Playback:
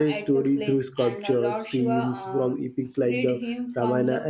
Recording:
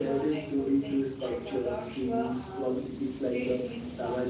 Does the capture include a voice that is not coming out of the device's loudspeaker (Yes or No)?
No